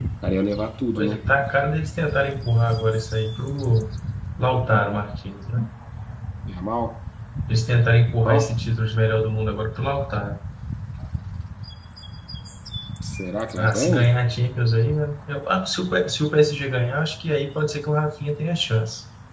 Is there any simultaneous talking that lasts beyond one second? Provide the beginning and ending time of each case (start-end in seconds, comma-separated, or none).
none